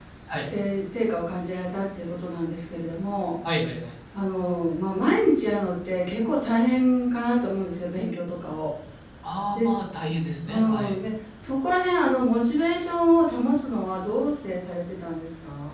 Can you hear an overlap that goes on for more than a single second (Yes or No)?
No